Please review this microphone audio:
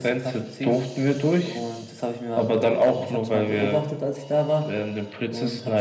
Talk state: echo only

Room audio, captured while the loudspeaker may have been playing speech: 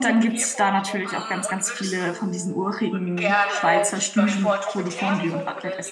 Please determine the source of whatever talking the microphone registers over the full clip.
both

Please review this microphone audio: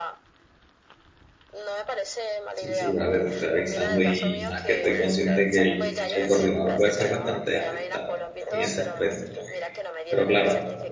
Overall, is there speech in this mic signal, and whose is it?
both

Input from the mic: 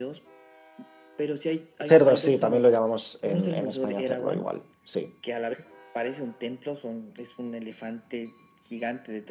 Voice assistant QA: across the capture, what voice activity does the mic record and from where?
both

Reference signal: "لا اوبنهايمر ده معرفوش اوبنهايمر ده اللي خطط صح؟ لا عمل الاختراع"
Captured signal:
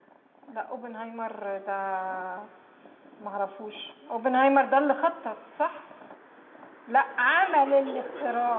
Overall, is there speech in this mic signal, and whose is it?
both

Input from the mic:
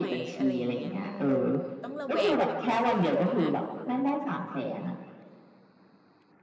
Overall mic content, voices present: both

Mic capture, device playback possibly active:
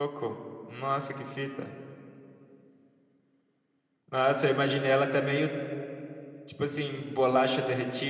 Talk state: user only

